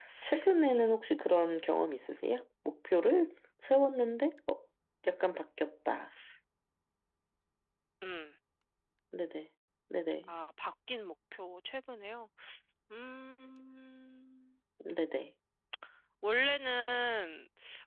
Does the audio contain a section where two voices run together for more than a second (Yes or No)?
No